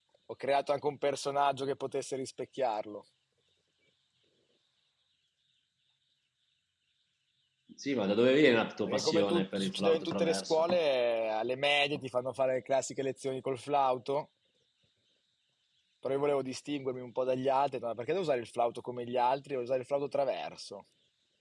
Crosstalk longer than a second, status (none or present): present